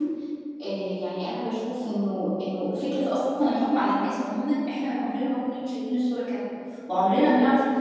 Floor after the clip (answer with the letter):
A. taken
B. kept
B